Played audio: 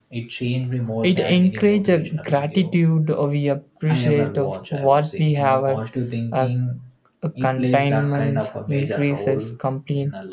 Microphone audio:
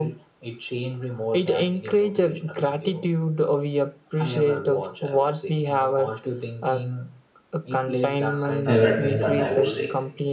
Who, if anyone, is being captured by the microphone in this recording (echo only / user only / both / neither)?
both